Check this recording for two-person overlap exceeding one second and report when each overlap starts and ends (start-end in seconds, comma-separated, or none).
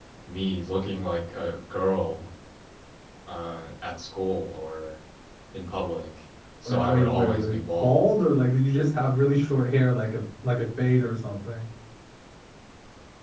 6.7-8.1